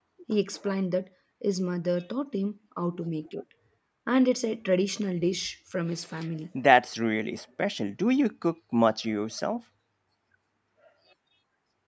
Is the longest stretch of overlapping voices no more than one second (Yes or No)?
Yes